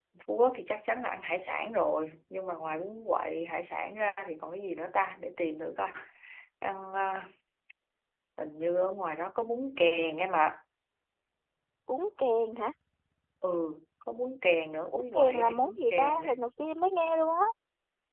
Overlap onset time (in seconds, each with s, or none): 14.9 s